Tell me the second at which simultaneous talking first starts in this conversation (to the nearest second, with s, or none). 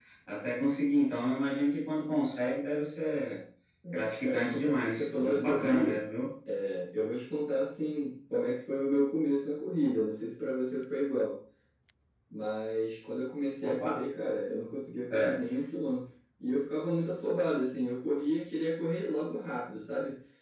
4 s